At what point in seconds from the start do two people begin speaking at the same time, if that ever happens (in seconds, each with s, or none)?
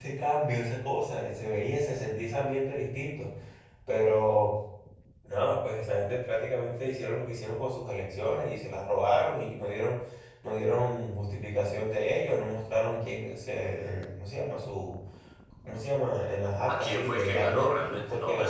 16.7 s